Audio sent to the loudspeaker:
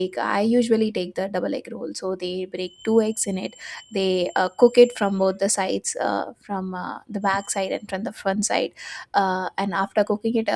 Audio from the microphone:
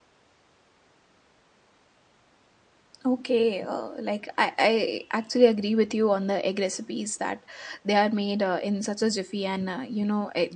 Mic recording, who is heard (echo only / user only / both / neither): user only